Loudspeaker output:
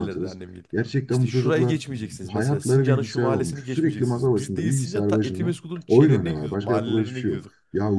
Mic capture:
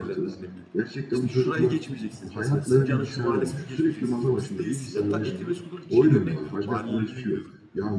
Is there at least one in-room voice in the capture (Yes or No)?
No